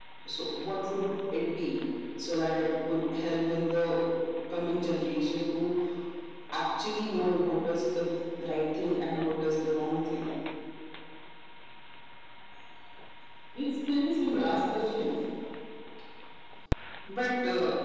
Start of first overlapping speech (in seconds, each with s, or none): none